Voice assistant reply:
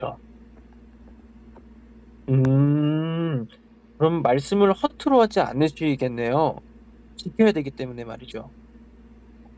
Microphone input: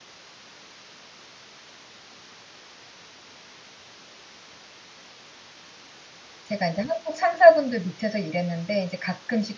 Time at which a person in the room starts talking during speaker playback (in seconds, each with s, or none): 6.4 s